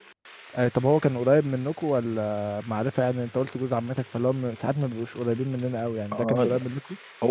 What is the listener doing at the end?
taking over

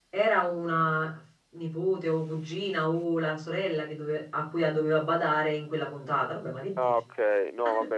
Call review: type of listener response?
taking over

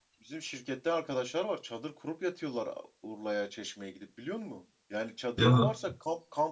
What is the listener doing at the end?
listening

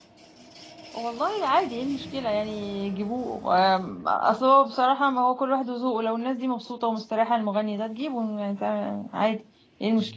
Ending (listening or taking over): taking over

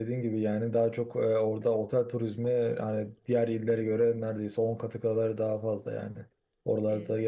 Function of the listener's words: listening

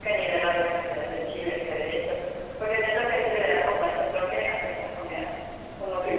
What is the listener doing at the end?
listening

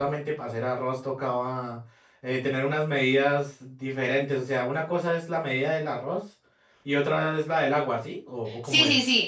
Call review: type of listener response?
taking over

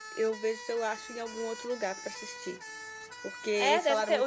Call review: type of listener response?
taking over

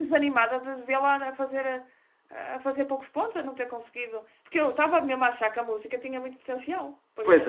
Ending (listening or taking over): taking over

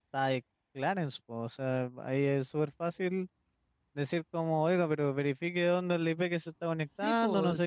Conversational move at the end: taking over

